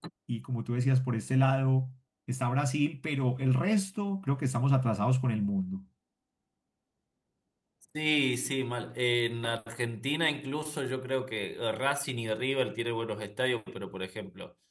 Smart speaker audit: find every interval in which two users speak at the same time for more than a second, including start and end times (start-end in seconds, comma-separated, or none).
none